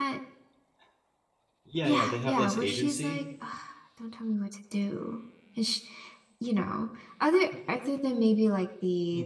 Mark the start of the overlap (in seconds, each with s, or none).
1.8 s